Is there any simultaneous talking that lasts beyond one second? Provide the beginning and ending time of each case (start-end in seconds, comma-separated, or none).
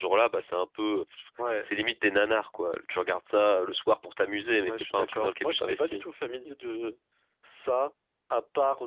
4.7-6.0